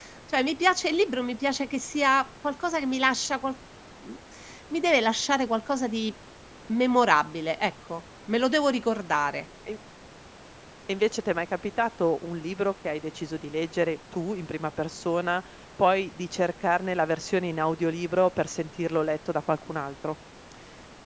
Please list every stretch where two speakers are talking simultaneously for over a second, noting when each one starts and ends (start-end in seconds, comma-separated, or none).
none